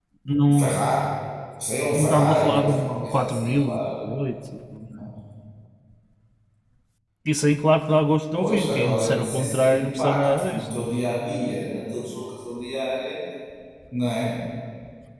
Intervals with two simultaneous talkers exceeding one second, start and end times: 1.9-4.0, 8.4-10.9

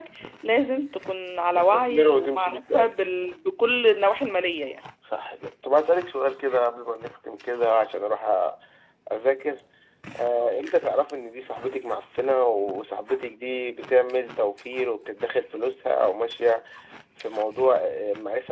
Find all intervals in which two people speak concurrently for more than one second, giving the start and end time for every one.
1.6-2.9

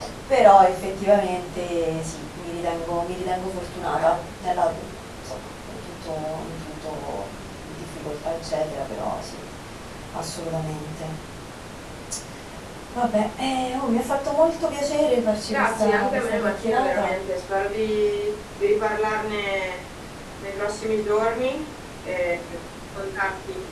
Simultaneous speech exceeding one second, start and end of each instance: 15.5-17.2

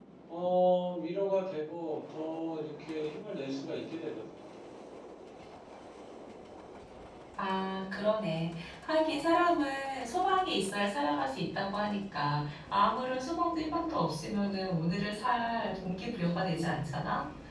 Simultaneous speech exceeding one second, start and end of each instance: none

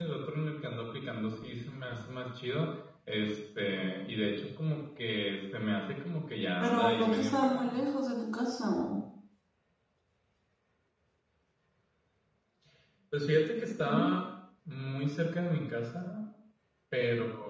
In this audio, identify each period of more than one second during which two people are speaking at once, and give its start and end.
6.6-7.8

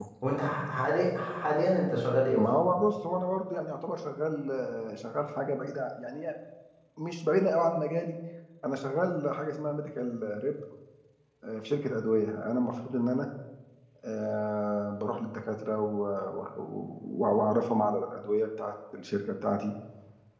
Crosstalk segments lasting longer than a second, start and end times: none

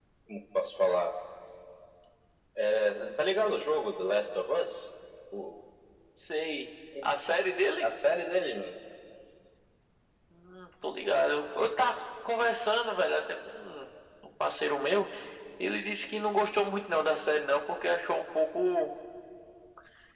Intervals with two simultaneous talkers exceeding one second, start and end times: none

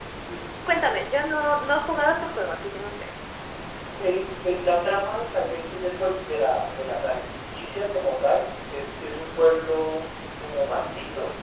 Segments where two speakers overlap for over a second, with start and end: none

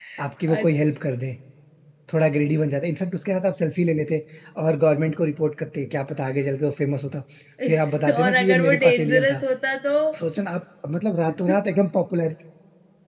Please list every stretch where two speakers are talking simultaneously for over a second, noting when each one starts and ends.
8.2-9.4

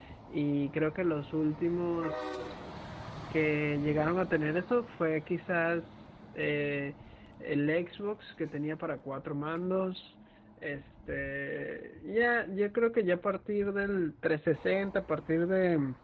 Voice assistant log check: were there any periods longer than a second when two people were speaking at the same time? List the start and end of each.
none

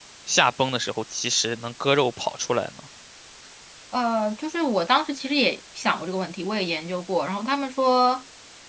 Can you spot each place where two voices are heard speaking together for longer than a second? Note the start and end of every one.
none

